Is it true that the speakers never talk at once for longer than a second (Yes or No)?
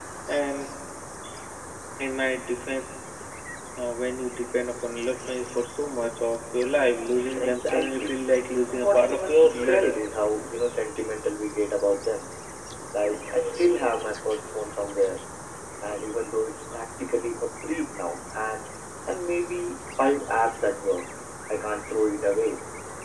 No